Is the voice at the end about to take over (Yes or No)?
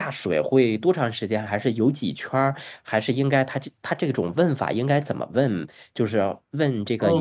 Yes